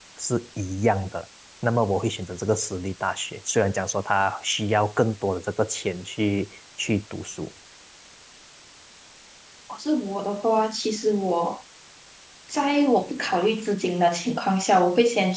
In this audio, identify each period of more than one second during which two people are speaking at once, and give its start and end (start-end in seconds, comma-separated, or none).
none